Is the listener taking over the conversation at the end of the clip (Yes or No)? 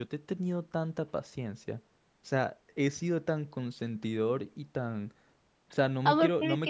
Yes